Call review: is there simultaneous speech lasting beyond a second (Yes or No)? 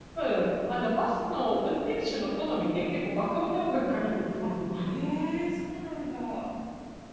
No